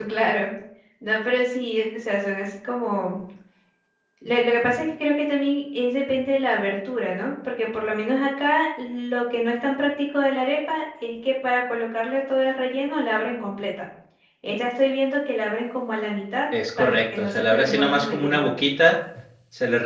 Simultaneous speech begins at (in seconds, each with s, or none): 16.8 s